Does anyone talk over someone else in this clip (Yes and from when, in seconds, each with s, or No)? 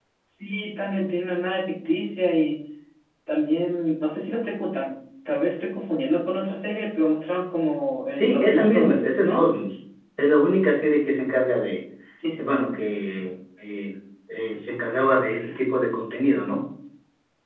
Yes, from 8.1 s